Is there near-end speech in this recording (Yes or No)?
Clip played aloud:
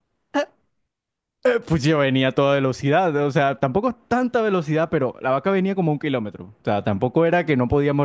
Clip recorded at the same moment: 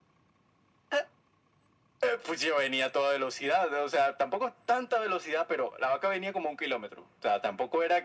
No